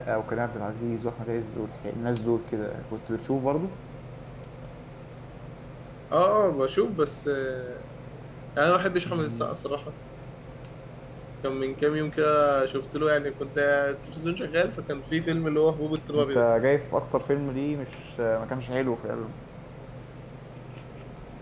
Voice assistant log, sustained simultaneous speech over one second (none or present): none